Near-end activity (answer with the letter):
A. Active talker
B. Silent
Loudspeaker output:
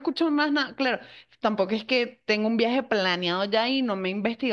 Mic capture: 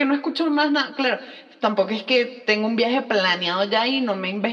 B